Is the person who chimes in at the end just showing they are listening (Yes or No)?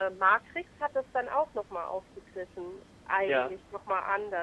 Yes